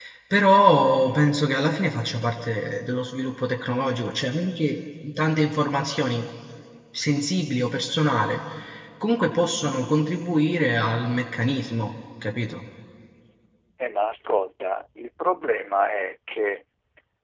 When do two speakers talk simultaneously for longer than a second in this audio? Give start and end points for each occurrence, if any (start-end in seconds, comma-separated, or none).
none